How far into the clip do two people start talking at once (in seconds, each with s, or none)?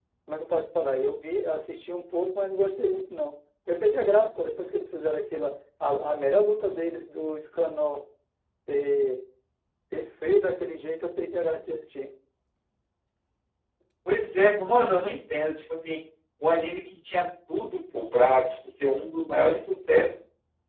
none